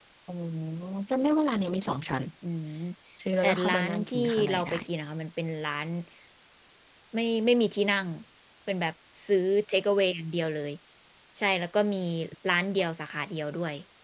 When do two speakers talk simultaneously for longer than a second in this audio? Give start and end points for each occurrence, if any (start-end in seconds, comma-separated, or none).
3.4-4.7